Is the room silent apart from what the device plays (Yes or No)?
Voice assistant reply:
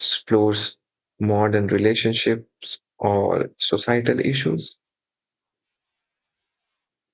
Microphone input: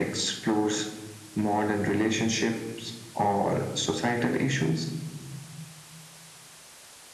Yes